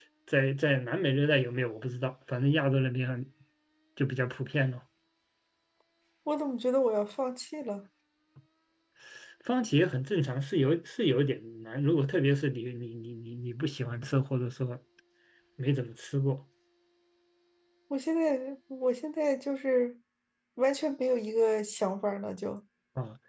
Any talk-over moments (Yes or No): No